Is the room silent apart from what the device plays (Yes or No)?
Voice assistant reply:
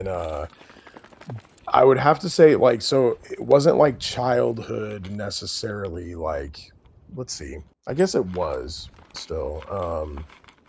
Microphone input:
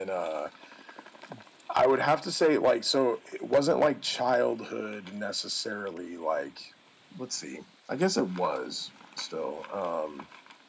Yes